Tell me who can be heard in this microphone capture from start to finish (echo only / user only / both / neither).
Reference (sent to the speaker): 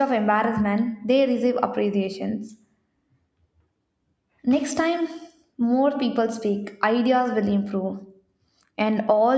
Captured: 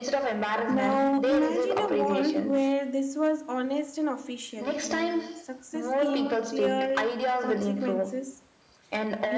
both